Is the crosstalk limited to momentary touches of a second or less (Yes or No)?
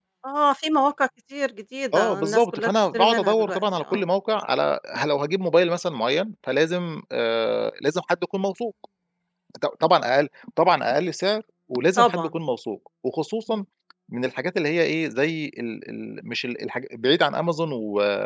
No